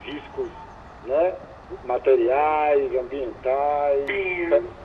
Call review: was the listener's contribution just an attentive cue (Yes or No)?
Yes